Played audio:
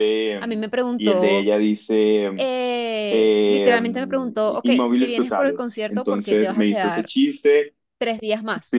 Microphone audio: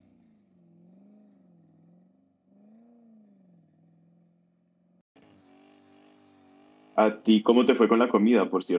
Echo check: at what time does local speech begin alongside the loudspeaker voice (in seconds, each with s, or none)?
7.0 s